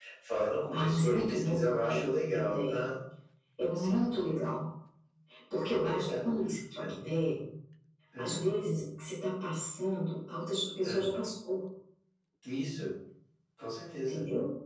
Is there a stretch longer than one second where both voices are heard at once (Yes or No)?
Yes